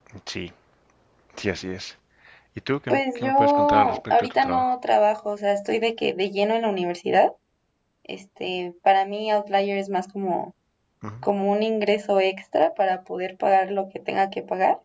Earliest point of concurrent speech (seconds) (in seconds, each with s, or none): 2.9 s